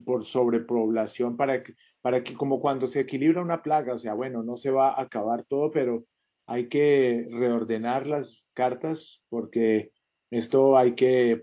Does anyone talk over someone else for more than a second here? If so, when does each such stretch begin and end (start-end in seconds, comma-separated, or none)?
none